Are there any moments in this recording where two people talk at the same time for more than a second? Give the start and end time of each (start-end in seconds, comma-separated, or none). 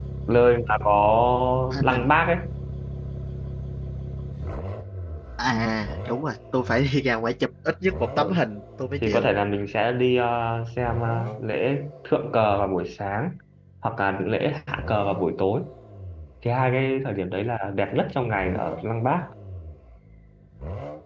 none